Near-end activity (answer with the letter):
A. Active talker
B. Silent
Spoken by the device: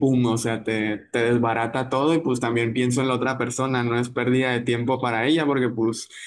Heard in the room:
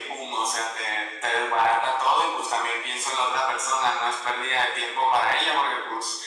B